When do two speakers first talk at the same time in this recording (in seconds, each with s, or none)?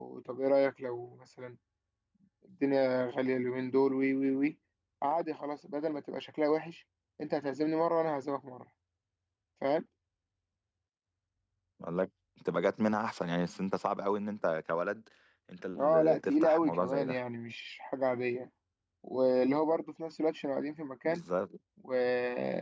15.8 s